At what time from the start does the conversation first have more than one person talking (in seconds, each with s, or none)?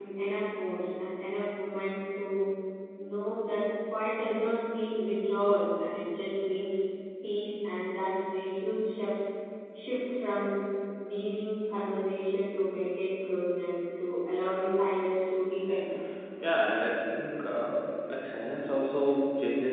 none